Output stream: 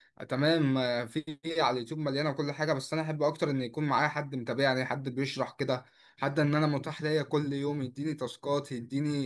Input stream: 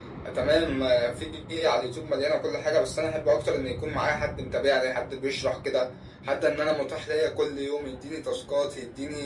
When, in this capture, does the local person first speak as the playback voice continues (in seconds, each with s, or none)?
none